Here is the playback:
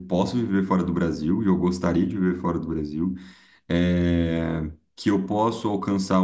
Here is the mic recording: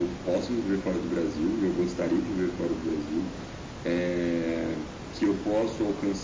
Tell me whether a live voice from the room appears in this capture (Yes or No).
No